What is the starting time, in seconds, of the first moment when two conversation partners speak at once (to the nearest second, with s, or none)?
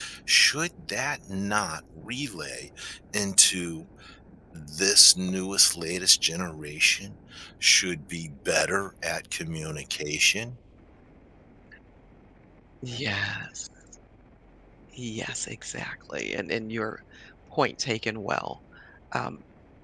none